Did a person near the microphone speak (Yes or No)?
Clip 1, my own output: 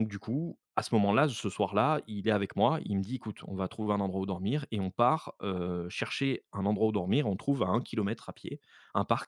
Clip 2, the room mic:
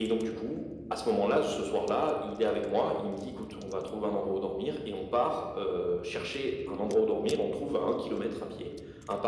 No